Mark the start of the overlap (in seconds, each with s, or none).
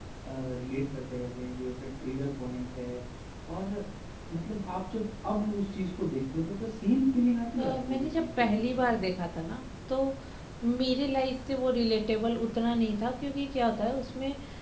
7.6 s